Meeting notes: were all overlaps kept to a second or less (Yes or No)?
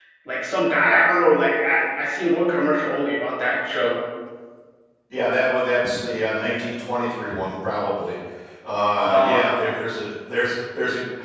Yes